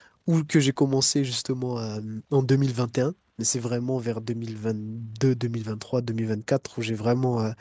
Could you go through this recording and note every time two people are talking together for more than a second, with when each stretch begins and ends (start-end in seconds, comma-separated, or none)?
none